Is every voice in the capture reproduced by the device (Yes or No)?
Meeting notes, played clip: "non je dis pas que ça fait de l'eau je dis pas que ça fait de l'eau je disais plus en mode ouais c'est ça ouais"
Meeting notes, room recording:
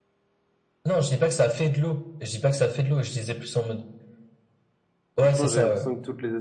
No